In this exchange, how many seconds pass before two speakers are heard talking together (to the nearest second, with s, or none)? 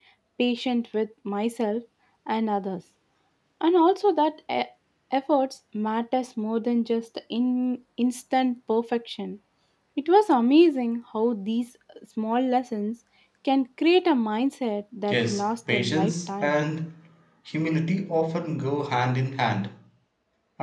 15 s